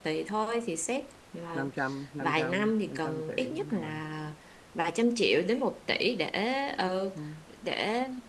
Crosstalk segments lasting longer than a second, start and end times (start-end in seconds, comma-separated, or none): 2.2-4.0